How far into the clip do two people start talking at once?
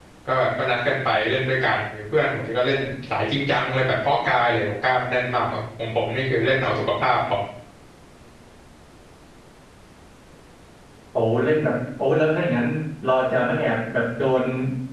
none

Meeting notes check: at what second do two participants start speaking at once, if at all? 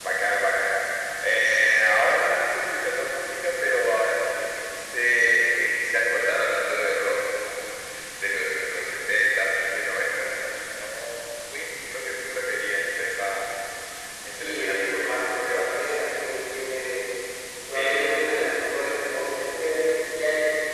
14 s

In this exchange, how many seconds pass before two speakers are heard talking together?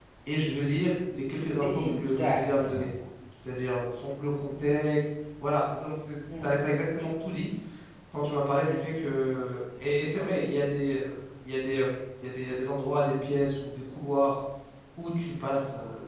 2 s

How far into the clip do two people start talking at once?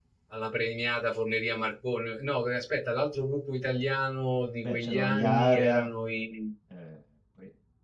5 s

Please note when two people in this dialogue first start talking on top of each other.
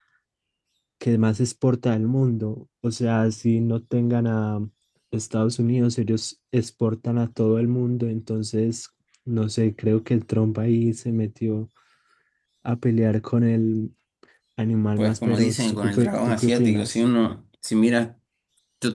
15 s

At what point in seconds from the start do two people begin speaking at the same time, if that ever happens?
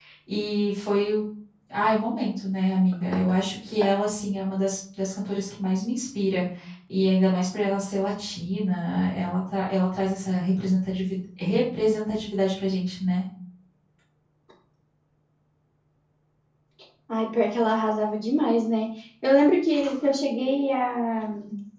none

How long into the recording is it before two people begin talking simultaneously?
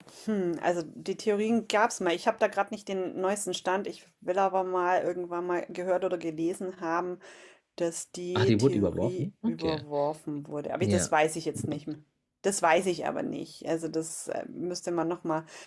8 s

